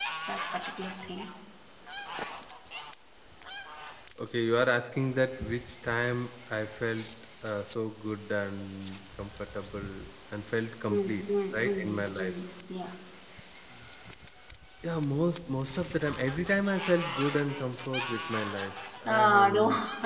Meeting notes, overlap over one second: present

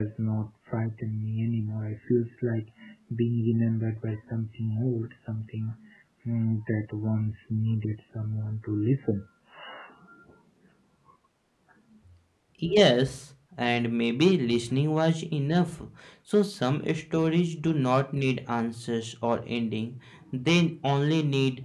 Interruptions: none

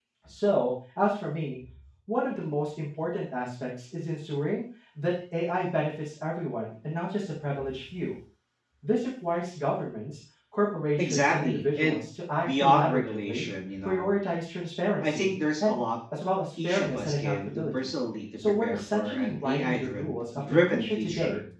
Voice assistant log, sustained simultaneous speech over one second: present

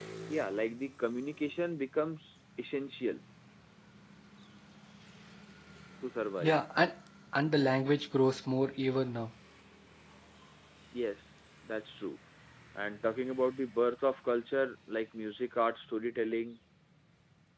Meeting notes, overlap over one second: none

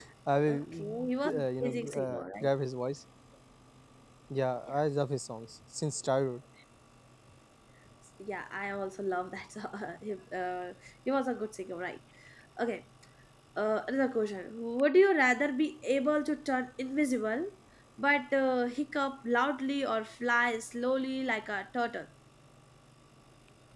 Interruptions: present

